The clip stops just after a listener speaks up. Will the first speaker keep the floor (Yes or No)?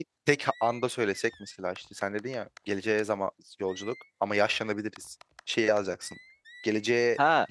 No